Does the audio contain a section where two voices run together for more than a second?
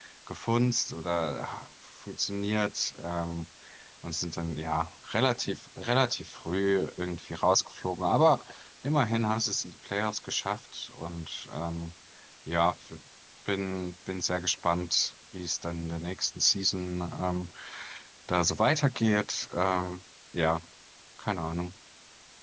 No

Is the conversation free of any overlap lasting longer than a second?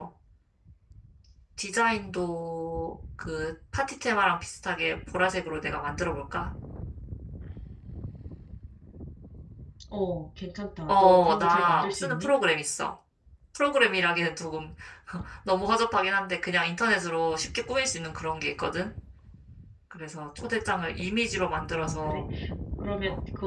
No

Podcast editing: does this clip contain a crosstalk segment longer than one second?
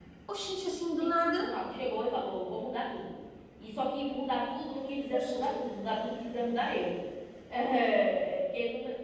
No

